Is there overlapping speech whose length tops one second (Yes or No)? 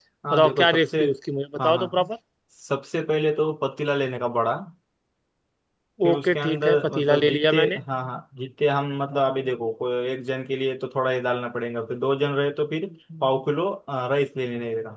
Yes